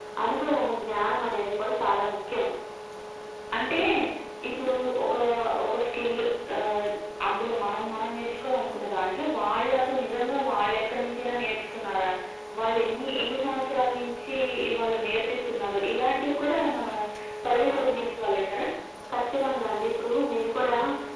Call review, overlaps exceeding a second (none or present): none